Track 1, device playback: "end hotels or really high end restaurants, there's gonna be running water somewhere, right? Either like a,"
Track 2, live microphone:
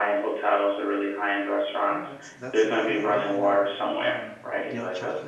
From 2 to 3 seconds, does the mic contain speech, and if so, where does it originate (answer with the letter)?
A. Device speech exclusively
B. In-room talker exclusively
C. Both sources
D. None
C